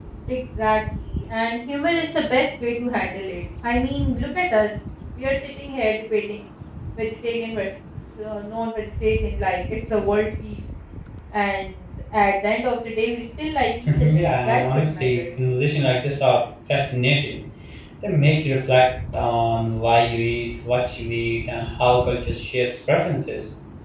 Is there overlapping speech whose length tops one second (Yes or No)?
Yes